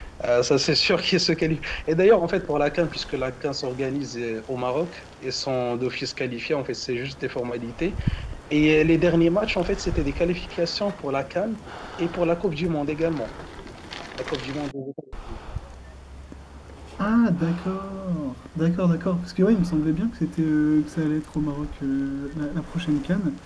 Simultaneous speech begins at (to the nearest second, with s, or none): none